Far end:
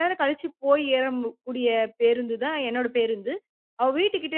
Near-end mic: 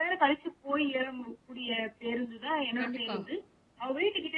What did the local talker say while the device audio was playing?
கண்டிப்பா.

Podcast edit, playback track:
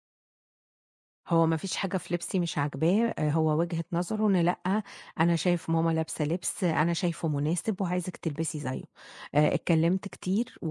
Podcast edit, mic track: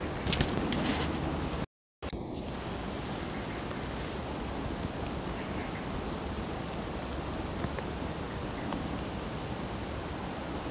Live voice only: none

